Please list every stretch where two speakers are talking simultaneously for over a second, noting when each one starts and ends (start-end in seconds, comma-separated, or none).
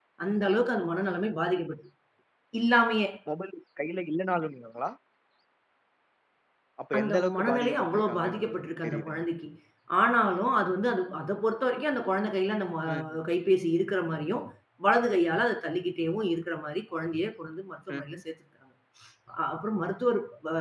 7.0-8.5